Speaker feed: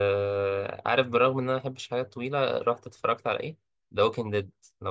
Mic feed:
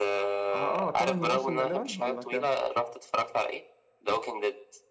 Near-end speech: present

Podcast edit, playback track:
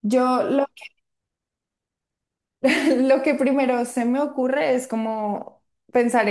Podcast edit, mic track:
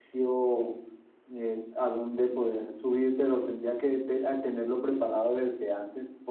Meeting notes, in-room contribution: present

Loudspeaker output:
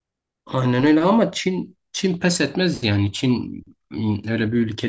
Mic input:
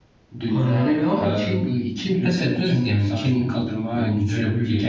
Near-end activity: present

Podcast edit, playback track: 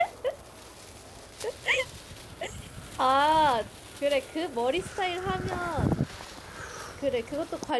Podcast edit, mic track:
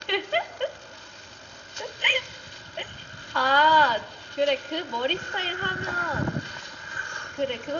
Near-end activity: none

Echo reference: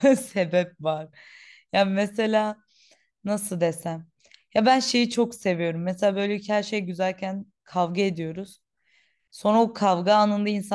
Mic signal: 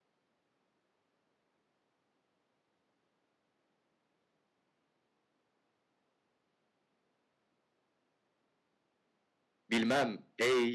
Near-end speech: present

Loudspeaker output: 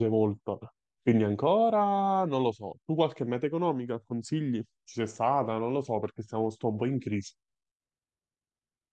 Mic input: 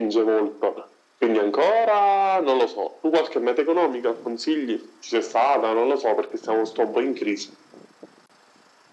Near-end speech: none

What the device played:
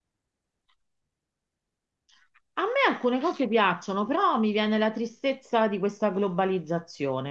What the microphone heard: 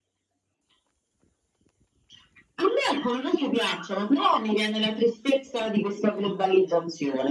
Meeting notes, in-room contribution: none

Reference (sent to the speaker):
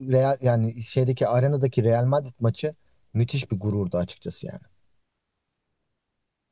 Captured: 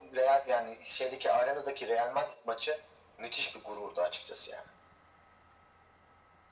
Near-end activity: none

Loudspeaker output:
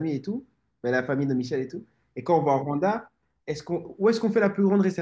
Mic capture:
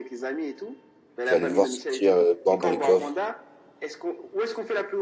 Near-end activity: present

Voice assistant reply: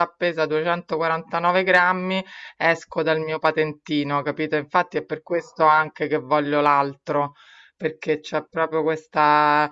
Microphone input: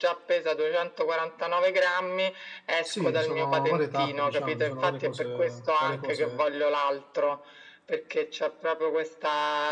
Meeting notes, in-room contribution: present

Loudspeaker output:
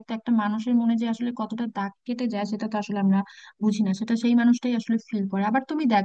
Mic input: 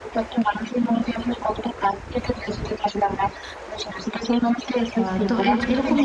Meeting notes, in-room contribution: present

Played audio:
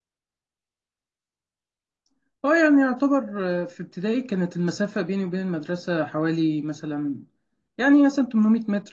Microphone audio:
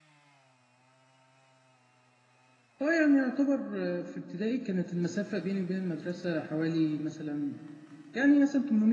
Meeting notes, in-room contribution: none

